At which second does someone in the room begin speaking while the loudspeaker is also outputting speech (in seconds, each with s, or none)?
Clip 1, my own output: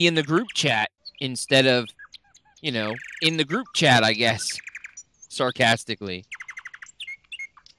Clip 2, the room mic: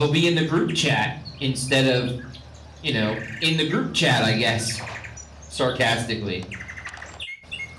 none